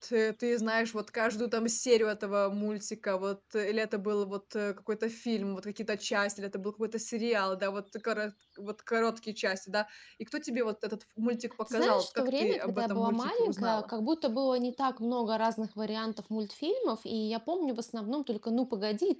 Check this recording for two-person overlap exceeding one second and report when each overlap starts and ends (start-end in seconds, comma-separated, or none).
11.7-13.9